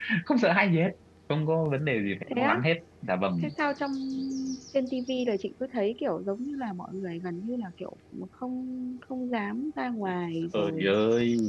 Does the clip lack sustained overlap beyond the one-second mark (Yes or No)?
Yes